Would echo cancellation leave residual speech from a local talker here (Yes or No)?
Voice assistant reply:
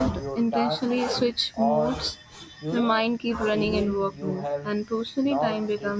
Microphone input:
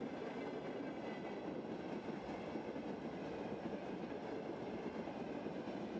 No